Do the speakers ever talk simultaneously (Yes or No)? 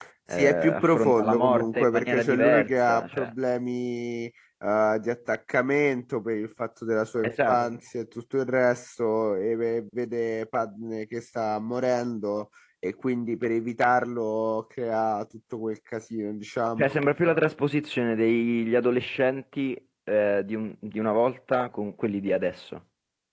Yes